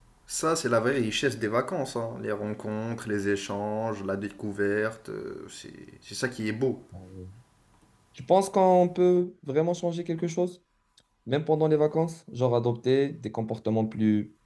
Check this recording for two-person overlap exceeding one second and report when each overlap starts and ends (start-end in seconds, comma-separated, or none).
none